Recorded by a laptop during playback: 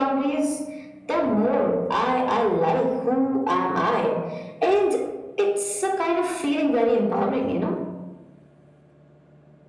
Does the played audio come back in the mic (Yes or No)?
Yes